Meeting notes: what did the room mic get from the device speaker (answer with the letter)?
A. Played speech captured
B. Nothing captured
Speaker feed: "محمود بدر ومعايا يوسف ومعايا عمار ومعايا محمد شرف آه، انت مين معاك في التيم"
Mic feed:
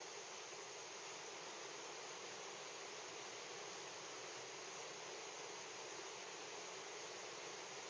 B